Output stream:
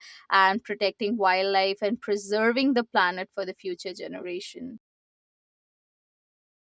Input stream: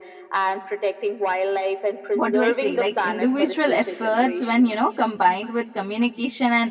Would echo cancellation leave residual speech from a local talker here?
Yes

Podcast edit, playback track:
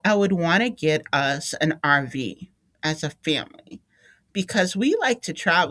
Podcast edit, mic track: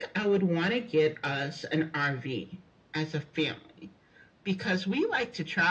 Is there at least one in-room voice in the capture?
No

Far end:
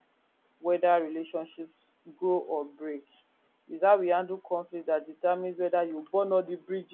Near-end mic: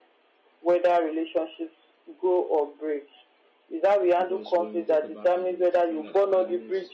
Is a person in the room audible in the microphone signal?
Yes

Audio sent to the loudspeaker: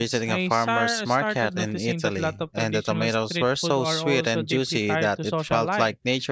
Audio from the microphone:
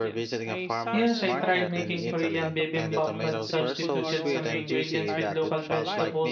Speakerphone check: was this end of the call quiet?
No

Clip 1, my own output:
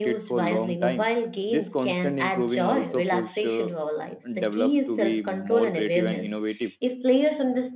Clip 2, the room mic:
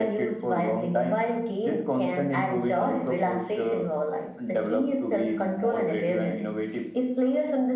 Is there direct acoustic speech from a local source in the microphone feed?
No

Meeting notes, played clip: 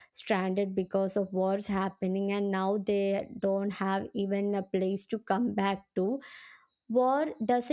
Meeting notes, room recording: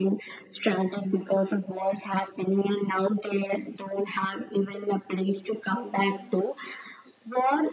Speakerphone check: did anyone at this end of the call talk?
No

